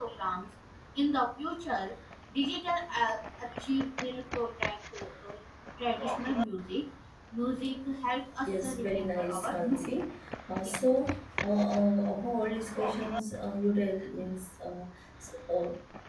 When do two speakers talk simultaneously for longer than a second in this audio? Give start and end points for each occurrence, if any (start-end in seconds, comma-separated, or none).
8.5-9.9